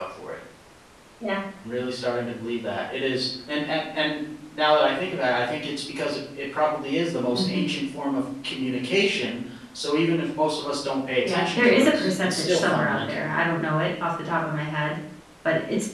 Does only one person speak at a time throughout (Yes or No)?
No